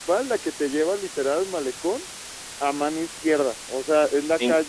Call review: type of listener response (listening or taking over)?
listening